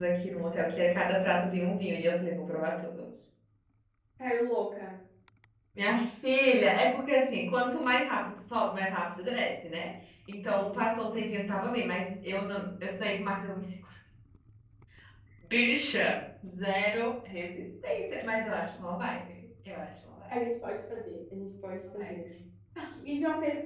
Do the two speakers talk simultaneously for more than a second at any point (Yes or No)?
No